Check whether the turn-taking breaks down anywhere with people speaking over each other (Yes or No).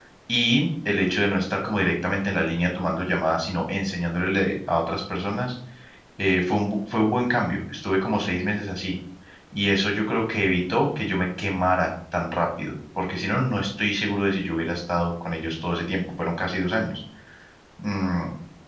No